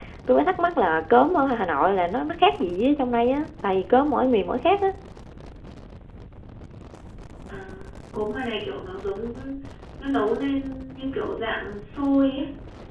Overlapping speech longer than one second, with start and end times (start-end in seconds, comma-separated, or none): none